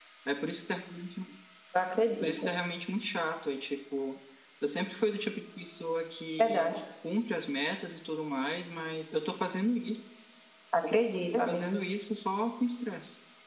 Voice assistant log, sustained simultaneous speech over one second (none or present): none